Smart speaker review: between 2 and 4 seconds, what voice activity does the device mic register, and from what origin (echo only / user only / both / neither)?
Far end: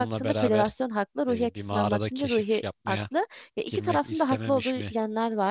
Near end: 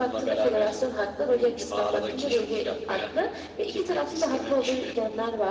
echo only